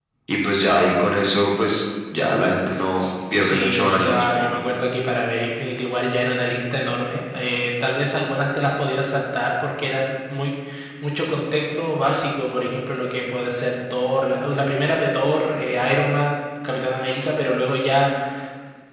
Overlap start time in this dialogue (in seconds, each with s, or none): 3.4 s